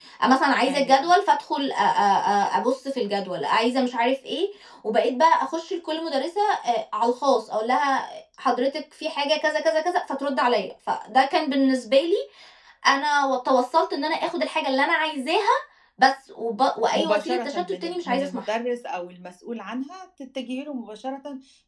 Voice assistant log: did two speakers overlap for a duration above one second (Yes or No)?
Yes